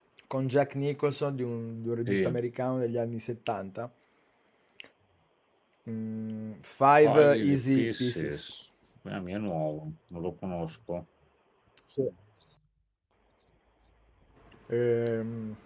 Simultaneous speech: Yes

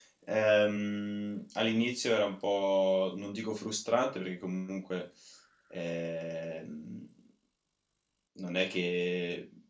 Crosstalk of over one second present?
No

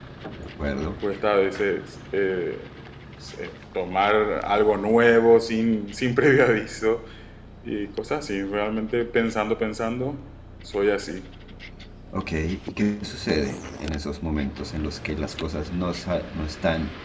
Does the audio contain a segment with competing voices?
No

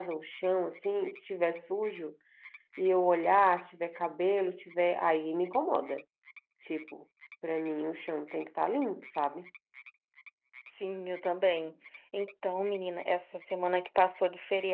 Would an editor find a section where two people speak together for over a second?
No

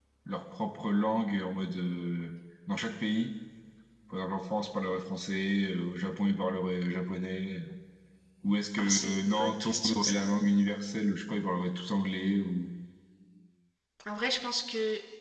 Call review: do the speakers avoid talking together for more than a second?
No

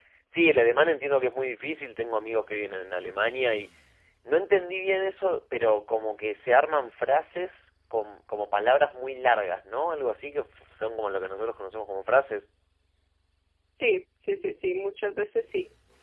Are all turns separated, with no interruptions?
Yes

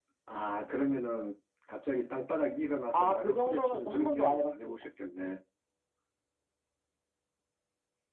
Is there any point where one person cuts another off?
Yes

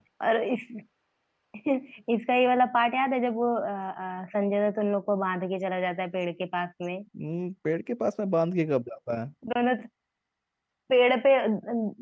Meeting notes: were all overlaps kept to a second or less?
Yes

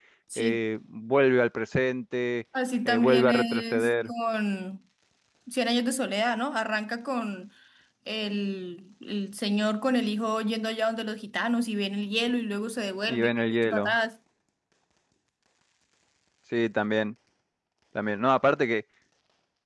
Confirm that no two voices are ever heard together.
No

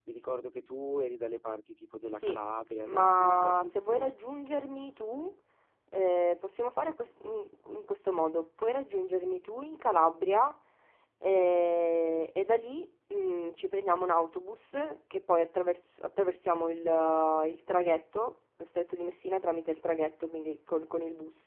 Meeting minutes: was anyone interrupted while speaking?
Yes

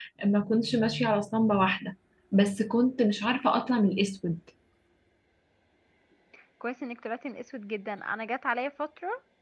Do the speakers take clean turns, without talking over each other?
Yes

